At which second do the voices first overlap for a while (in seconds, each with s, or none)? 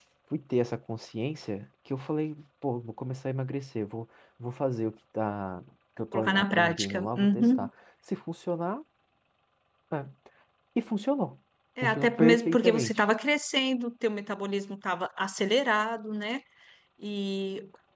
6.1 s